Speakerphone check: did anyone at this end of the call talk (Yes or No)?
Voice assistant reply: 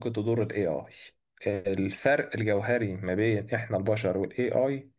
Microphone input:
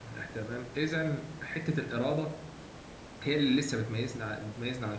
Yes